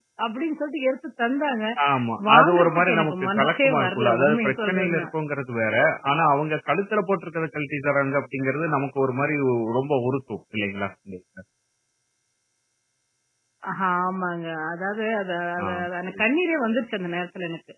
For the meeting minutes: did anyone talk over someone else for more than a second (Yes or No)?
Yes